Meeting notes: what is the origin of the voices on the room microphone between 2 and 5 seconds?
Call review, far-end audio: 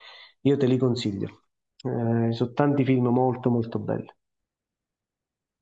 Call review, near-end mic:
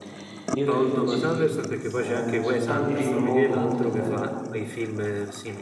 both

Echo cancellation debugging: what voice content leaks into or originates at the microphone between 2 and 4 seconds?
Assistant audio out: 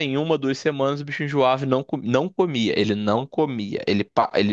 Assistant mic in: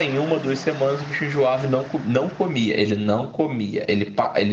echo only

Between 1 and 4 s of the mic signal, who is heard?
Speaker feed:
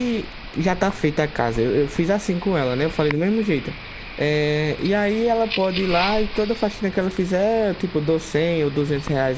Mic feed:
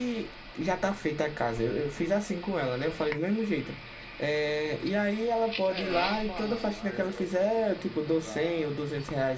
echo only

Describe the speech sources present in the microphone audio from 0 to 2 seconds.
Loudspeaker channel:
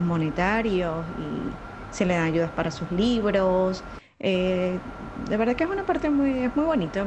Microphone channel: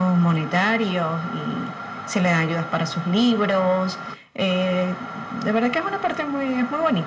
echo only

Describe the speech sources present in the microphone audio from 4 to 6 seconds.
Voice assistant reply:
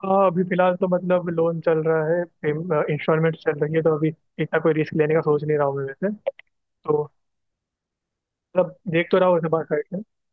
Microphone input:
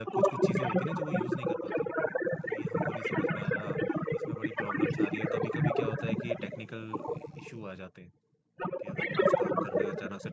both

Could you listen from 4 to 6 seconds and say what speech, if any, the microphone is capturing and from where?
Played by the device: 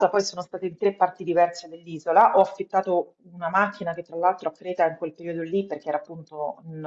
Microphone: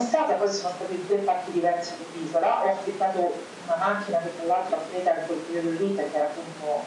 echo only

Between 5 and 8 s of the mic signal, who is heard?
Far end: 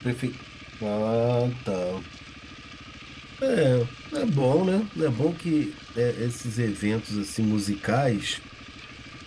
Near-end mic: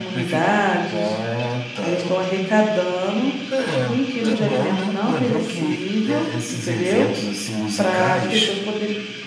both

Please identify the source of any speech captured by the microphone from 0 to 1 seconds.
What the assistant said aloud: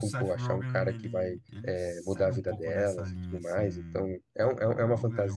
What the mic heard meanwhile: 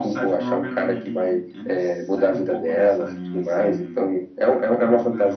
echo only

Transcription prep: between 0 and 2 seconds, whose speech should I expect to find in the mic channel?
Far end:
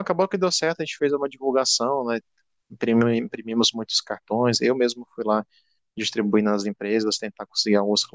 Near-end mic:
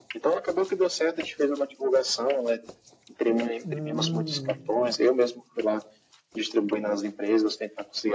echo only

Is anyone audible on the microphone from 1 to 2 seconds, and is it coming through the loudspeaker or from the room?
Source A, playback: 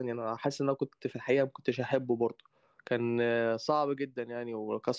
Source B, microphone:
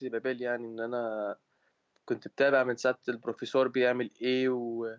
user only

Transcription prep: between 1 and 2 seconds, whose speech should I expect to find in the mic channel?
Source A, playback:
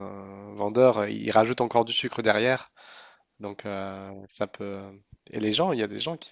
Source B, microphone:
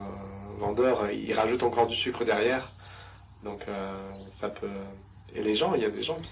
echo only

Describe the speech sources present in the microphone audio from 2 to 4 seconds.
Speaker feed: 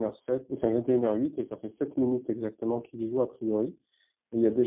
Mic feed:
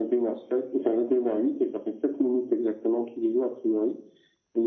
echo only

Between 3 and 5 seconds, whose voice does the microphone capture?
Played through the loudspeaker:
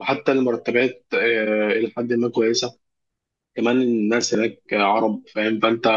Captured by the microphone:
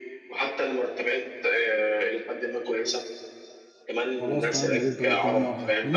both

